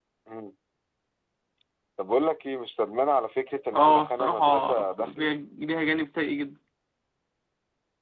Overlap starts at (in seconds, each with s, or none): 3.7 s